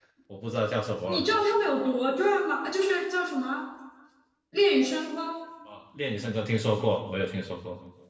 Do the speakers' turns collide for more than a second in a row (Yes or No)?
No